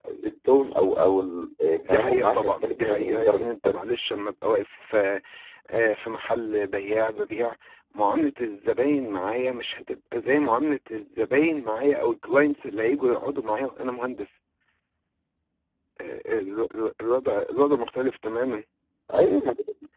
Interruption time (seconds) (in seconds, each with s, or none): 1.8 s